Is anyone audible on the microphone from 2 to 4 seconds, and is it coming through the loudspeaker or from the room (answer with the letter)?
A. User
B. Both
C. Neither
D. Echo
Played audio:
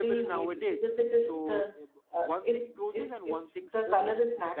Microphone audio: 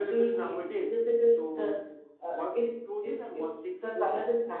D